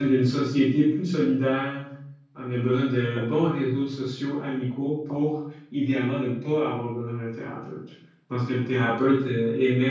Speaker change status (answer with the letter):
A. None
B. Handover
A